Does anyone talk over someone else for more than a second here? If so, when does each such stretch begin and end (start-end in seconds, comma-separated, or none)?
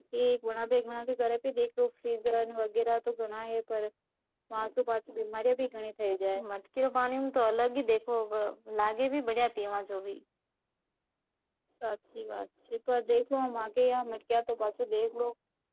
none